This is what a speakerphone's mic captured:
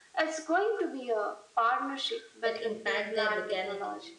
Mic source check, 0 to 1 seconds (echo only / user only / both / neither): echo only